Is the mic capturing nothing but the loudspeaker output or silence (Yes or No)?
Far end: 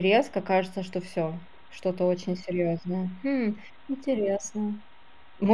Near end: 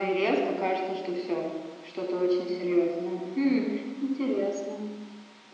Yes